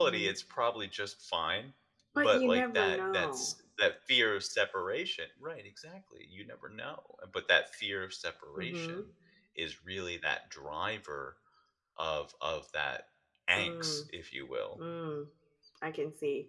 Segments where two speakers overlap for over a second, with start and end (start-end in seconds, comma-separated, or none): 2.2-3.5